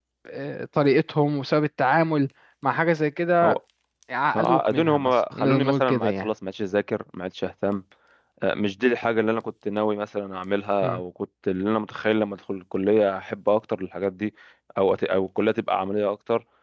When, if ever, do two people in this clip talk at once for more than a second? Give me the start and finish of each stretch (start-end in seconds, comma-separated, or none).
4.4-6.3